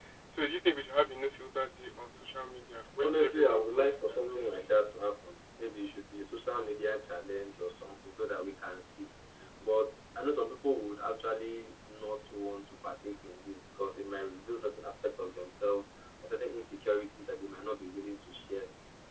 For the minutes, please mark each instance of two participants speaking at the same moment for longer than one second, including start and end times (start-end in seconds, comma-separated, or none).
3.0-4.8